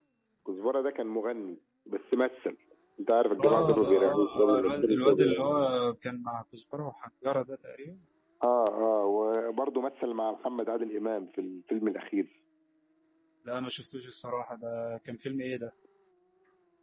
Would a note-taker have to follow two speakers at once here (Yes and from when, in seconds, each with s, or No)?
Yes, from 3.4 s